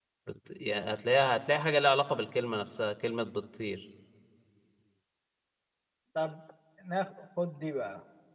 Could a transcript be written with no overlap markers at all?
Yes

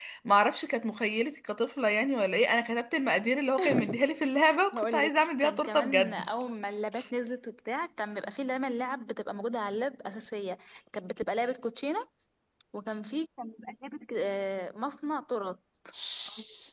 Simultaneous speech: Yes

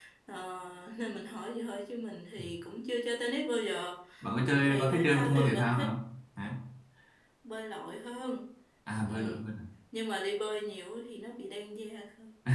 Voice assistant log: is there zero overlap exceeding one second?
No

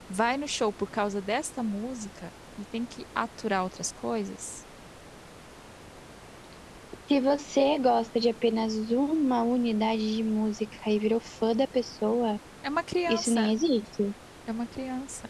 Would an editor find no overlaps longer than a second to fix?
Yes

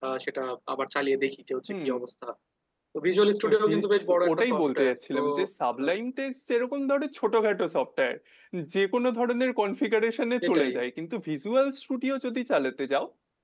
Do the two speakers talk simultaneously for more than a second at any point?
Yes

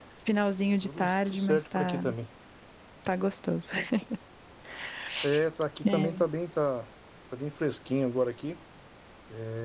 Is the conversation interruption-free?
No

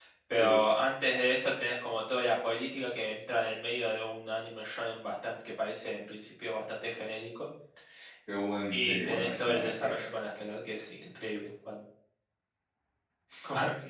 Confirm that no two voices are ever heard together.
No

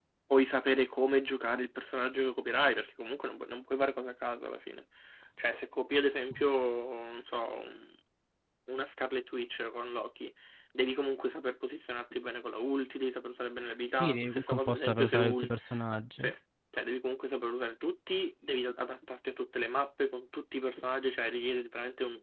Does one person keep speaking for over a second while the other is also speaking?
Yes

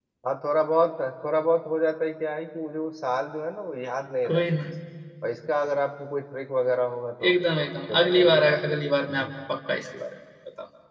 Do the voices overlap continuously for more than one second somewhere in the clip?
Yes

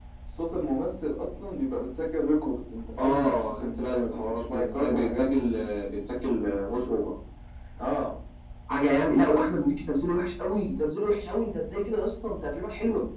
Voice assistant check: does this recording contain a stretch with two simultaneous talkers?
Yes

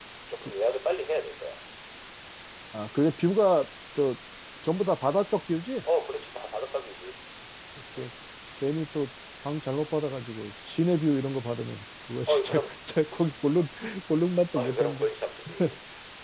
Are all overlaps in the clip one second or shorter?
Yes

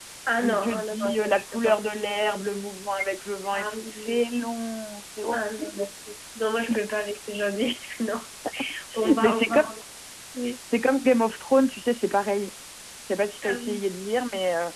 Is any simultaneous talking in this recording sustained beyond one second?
Yes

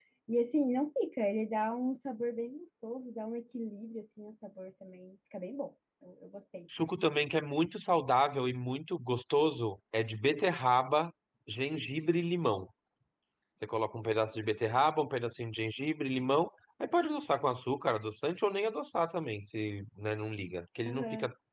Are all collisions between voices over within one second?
Yes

